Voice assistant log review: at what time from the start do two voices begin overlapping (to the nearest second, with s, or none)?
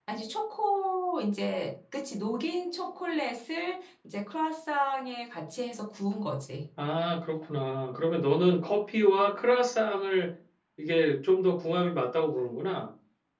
none